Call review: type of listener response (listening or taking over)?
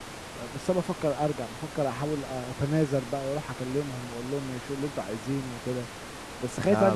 taking over